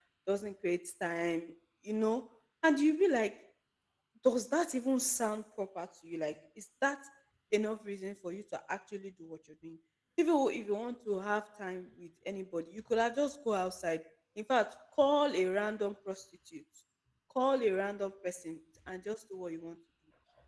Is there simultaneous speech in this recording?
No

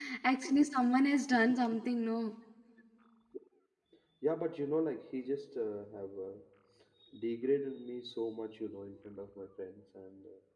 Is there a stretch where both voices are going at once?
No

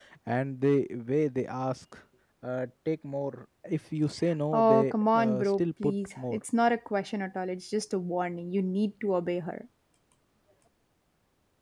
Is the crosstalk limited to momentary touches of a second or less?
No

